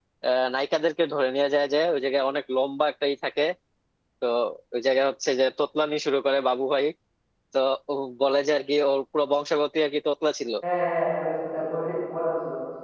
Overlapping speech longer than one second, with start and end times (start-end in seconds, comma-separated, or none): none